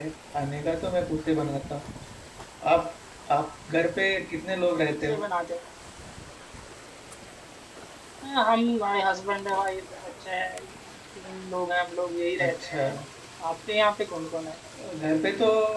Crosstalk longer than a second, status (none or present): none